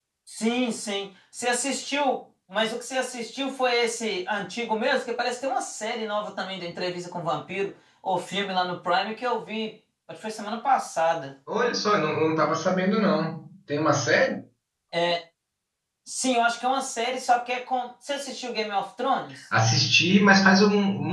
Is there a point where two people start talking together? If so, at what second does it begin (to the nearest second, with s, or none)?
none